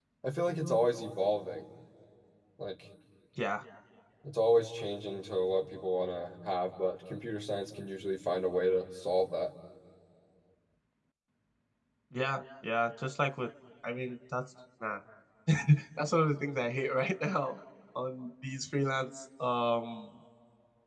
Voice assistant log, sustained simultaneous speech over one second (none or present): none